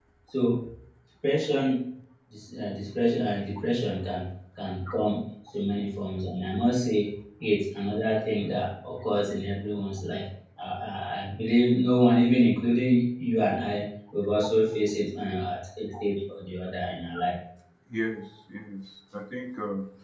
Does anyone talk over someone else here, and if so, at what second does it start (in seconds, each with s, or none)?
none